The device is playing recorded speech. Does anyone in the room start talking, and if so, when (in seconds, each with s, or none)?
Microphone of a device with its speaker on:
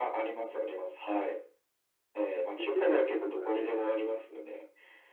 2.6 s